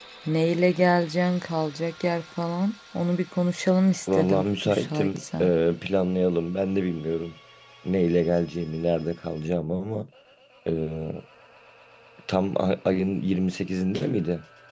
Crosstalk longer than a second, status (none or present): present